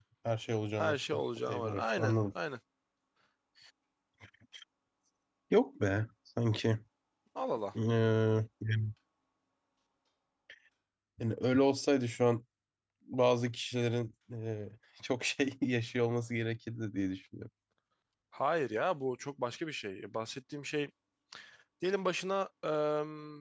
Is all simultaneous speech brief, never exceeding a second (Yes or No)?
No